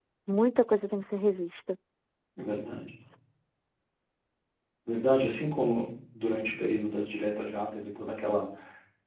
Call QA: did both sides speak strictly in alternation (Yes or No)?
Yes